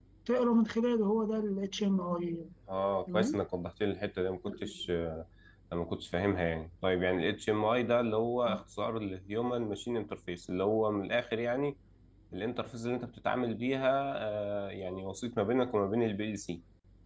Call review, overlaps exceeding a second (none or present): none